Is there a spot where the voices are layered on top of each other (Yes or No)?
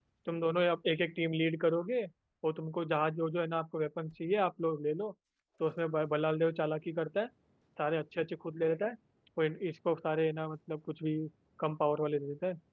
No